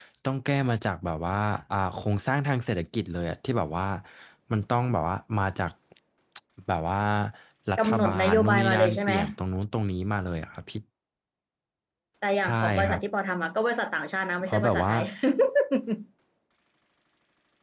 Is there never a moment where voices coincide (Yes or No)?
No